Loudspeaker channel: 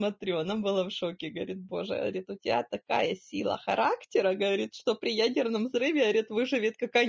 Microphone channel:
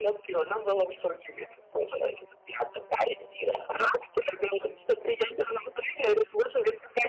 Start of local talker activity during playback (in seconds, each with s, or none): none